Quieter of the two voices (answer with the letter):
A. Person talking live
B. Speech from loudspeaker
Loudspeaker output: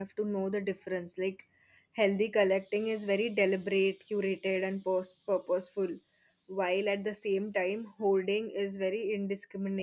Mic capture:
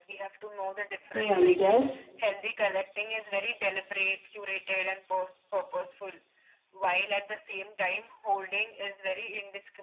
B